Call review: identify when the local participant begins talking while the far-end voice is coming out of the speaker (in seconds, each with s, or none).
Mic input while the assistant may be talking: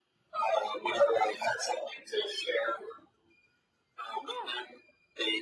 4.2 s